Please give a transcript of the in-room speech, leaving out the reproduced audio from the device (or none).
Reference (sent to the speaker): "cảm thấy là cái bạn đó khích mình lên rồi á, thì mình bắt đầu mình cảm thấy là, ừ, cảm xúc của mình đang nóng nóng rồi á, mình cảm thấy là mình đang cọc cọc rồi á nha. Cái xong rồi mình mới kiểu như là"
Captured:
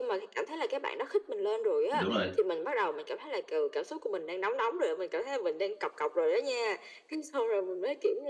Đúng rồi.